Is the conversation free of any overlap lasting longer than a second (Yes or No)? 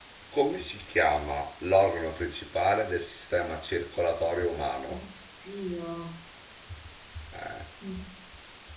Yes